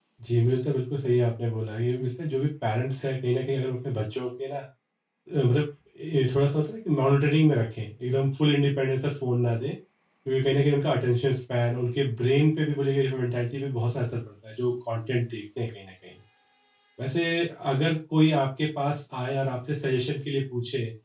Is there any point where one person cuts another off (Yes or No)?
No